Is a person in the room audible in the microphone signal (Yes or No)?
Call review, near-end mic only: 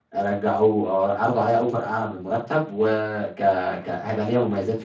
Yes